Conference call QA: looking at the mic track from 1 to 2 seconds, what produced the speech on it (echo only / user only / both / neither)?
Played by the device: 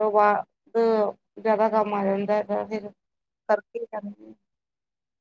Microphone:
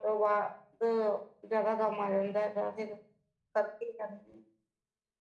echo only